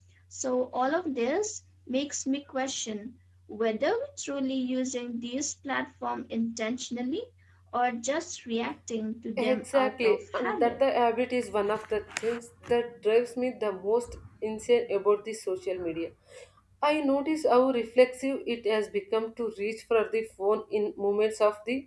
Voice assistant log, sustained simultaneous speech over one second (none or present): present